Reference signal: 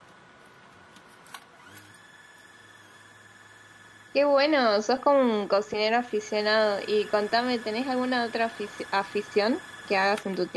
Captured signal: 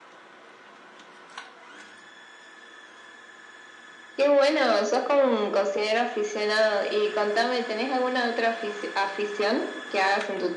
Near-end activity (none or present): none